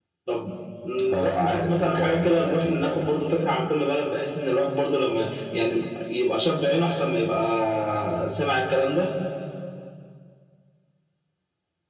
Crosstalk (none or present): present